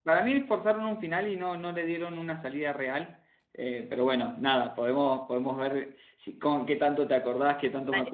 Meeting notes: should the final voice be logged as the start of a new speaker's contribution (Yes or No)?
Yes